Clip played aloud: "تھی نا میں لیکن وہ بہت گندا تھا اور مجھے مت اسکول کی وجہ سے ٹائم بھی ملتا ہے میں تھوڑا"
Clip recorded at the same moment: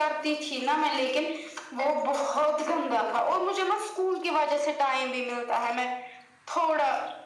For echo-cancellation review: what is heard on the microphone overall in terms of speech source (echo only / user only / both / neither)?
echo only